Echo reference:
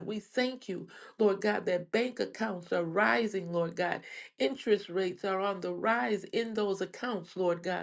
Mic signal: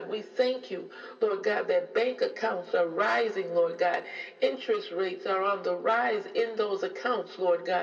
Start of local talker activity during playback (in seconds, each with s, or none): none